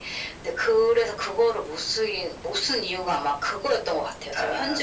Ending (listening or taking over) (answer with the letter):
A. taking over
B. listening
A